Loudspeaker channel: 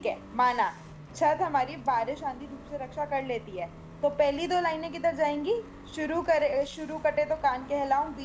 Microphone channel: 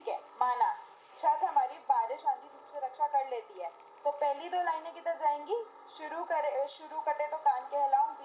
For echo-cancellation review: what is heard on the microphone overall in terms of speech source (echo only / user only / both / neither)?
echo only